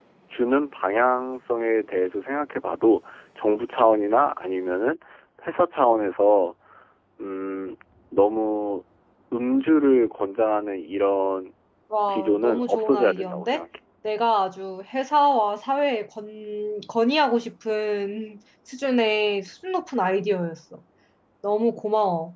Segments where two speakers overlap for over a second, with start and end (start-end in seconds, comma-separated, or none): 12.1-13.6